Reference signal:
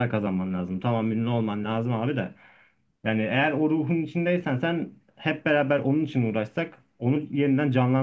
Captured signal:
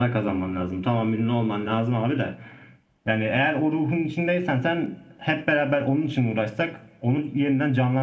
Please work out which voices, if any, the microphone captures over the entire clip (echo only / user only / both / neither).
echo only